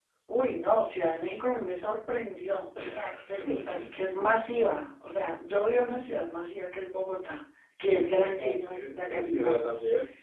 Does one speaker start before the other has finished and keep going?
Yes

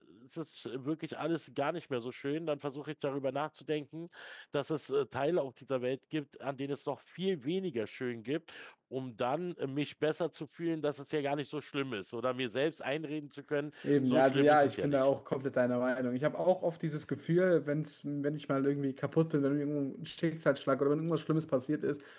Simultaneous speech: Yes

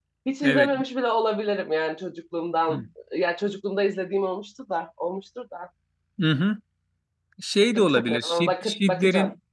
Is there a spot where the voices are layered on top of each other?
Yes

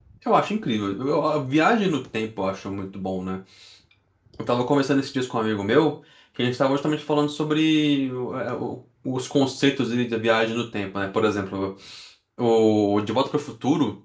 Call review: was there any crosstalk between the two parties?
No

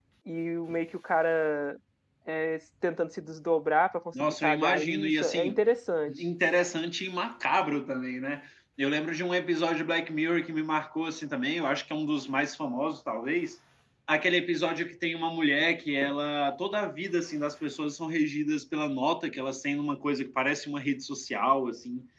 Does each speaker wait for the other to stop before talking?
No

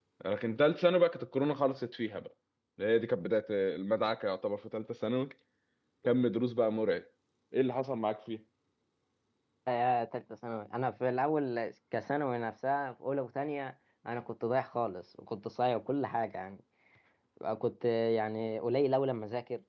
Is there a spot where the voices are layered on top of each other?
No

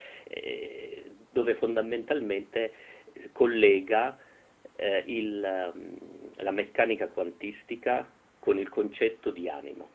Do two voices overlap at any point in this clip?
No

